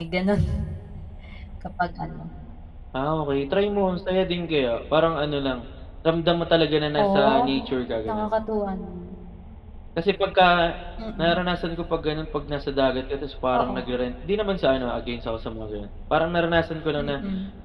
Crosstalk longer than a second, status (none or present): none